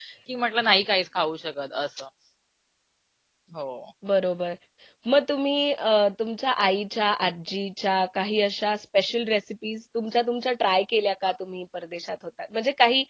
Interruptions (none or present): none